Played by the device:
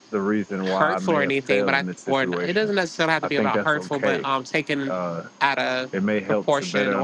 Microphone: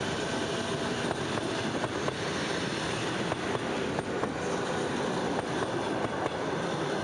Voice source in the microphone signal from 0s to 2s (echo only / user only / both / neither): neither